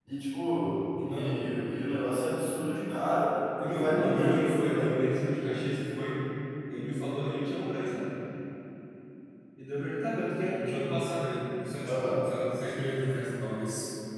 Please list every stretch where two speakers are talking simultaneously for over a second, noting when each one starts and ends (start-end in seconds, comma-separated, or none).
3.6-4.9